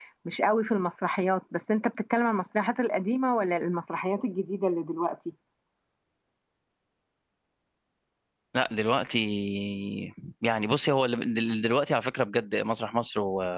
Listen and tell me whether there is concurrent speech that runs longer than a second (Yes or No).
No